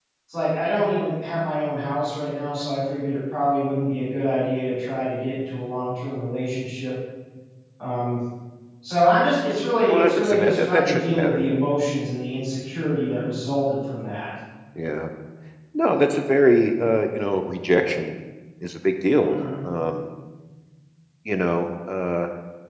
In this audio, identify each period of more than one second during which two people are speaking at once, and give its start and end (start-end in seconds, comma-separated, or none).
9.9-11.4